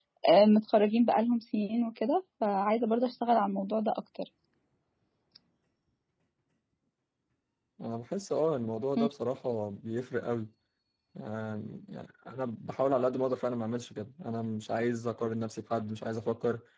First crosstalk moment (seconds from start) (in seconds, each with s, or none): none